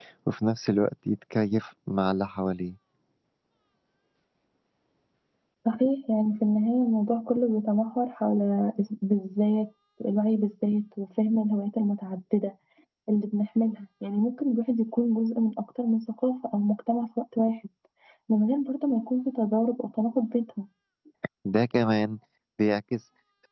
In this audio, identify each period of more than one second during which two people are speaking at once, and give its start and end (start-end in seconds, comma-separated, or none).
none